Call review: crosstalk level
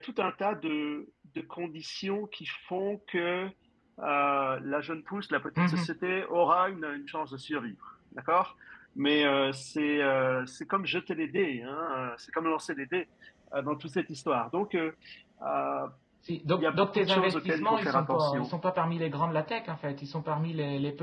present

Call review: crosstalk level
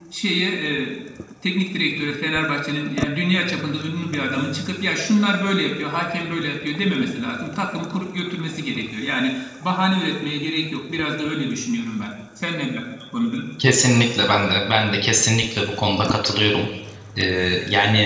none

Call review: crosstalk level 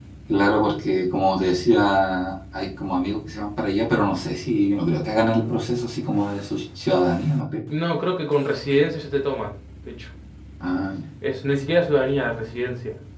none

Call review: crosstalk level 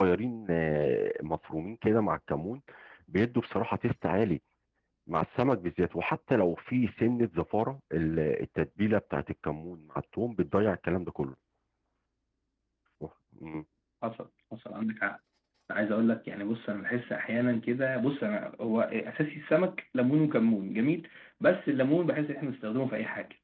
none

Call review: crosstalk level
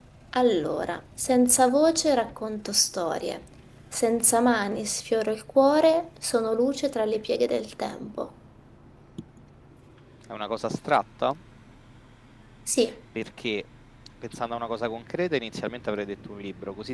none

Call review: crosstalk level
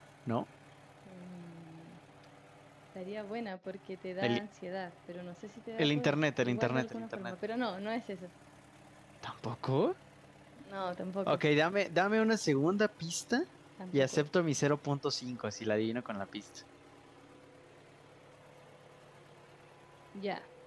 present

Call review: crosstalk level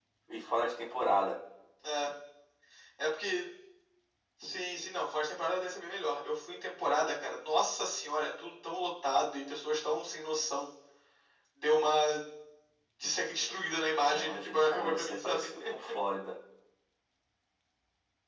present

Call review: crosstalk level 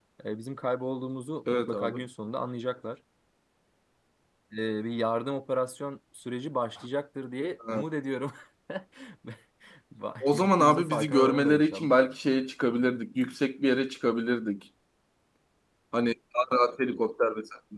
present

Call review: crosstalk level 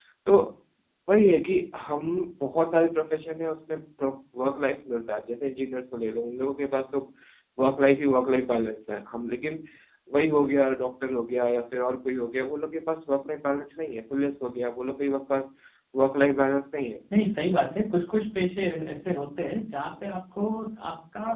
none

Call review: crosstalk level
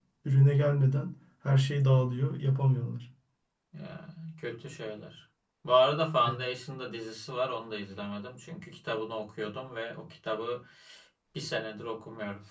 none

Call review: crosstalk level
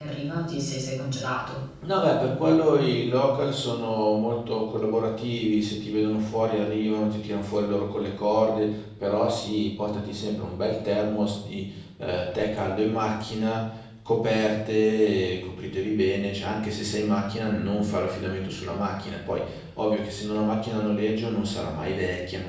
none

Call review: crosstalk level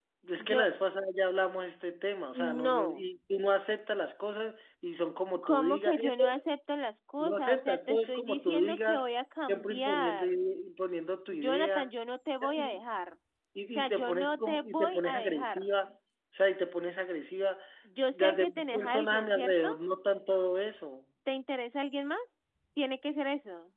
present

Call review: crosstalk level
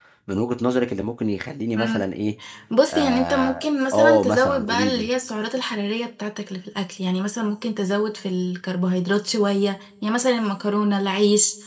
present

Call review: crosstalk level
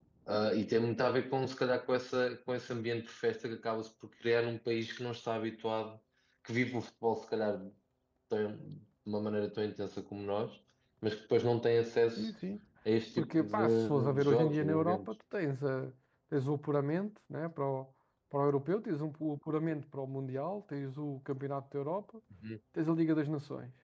present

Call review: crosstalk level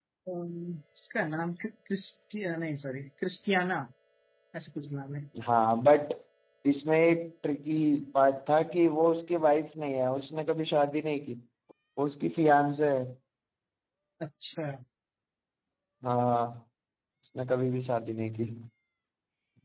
none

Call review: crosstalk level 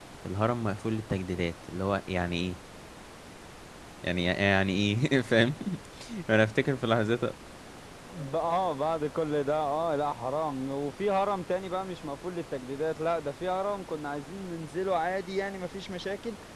none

